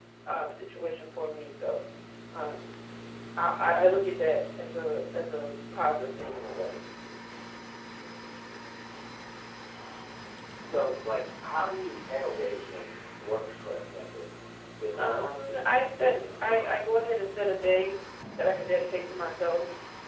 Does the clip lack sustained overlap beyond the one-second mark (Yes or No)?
No